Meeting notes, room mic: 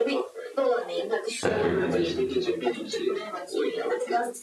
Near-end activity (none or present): present